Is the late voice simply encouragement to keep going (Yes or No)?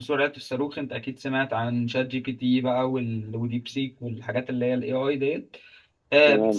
Yes